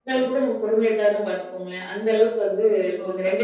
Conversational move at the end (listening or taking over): taking over